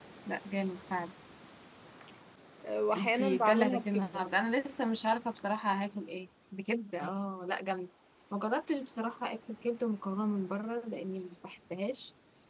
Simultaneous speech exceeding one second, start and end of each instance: 3.0-4.2

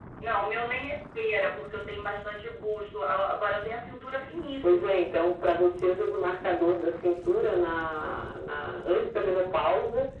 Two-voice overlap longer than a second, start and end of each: none

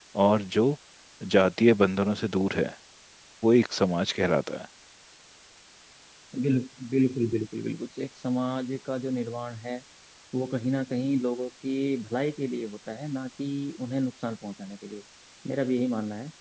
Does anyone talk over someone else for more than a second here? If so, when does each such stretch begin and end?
none

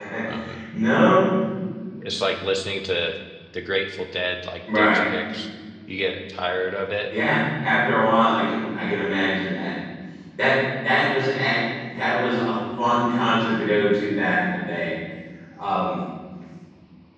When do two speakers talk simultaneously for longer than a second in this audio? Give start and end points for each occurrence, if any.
none

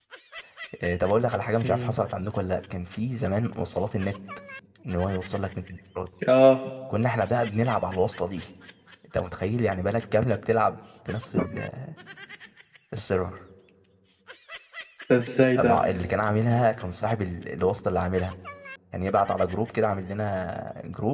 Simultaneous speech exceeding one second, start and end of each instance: none

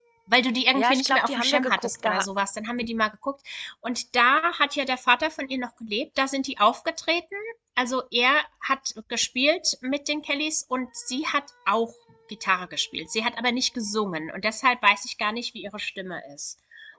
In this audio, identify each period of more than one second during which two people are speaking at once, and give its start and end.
0.8-2.2

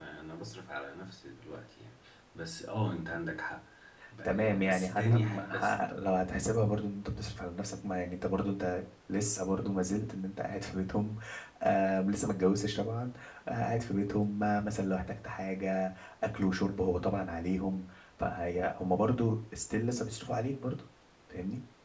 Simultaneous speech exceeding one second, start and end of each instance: 4.2-5.8

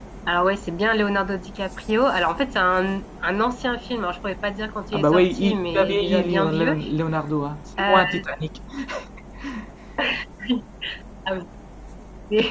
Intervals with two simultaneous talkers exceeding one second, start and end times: 4.9-6.8

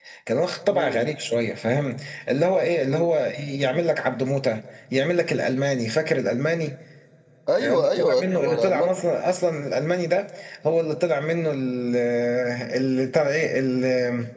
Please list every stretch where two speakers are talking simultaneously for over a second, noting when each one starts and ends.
7.6-8.9

